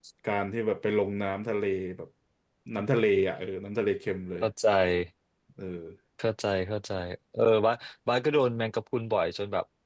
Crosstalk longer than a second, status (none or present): none